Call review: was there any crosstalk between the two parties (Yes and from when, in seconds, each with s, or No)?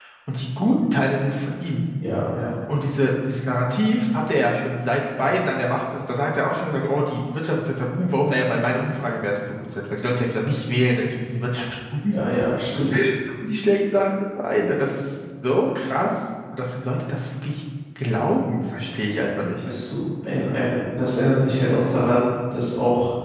No